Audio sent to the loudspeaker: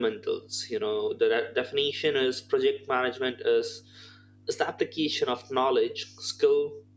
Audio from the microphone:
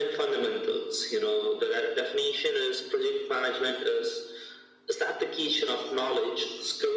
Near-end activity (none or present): none